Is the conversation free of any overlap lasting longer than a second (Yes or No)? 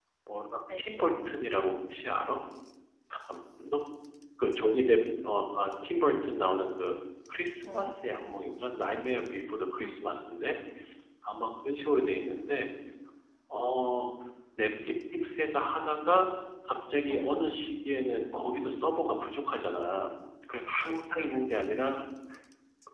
Yes